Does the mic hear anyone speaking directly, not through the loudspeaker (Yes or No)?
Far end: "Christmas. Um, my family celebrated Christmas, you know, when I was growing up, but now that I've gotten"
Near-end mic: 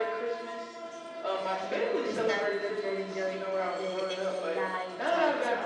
Yes